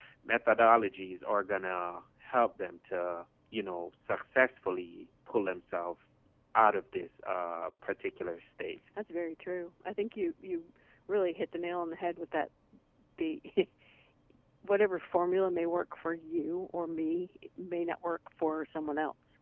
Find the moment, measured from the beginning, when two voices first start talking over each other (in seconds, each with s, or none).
none